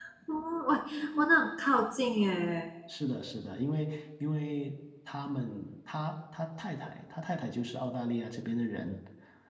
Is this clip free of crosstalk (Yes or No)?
Yes